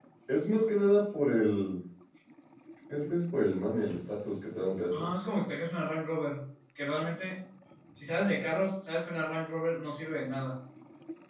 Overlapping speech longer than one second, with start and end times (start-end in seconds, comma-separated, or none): none